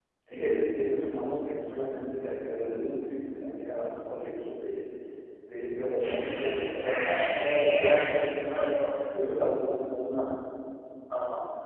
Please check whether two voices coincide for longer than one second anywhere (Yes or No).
Yes